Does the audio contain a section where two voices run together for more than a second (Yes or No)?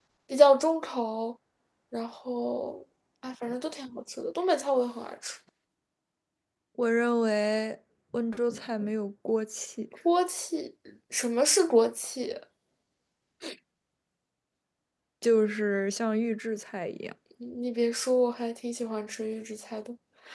No